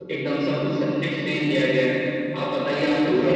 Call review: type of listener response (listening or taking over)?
listening